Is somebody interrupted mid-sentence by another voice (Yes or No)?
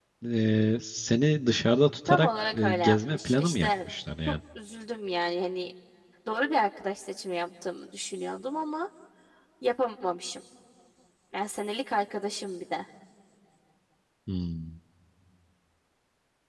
Yes